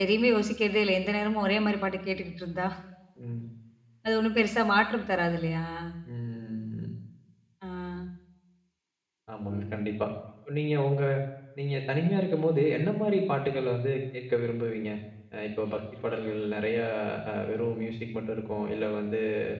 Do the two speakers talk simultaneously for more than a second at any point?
No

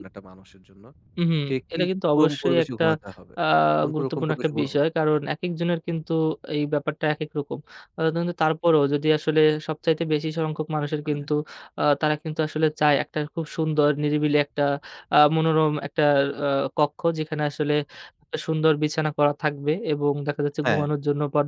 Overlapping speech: Yes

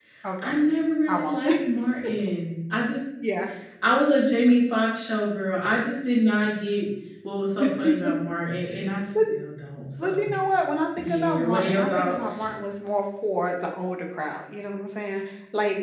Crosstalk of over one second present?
Yes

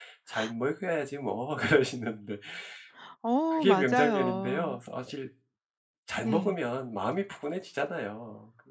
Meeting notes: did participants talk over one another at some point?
Yes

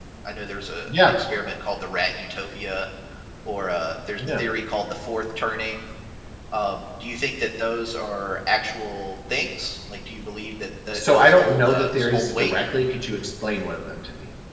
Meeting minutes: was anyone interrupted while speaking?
Yes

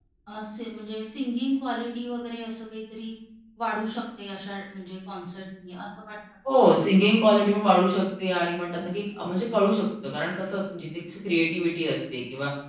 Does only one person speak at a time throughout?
Yes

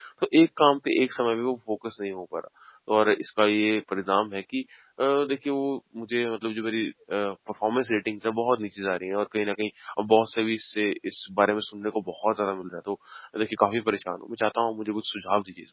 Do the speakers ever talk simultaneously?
No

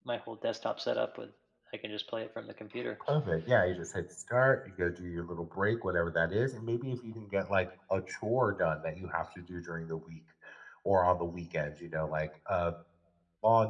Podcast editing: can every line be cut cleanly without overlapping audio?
Yes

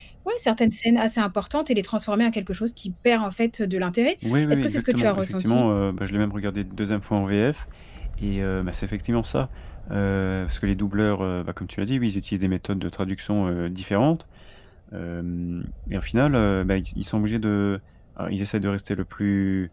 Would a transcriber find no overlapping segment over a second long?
No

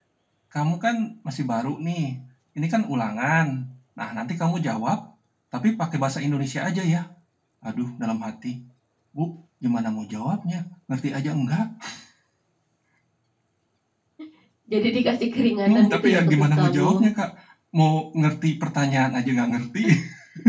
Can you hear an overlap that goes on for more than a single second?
Yes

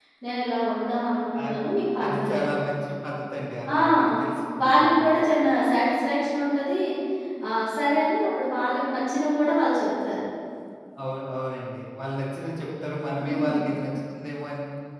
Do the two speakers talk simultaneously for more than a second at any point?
No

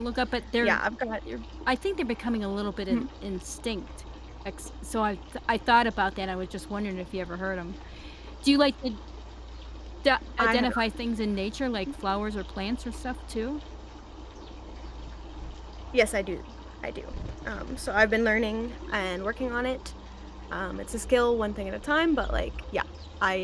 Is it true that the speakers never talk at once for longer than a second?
Yes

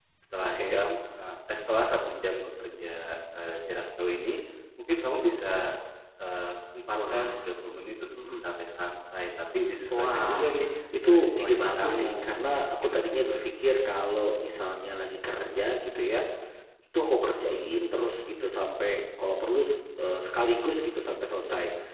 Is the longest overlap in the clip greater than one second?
Yes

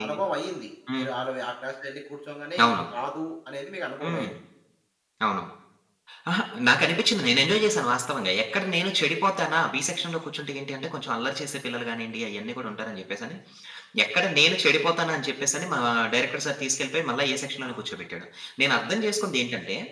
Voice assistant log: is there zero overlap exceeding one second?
Yes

